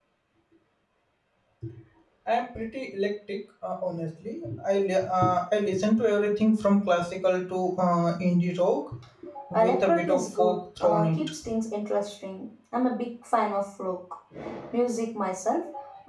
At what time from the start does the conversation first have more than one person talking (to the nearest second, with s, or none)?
10 s